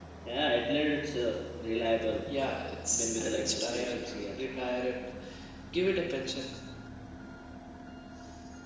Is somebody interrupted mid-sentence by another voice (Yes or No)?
Yes